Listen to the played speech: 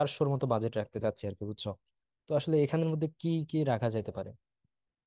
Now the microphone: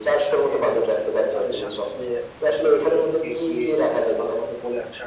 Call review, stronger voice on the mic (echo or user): echo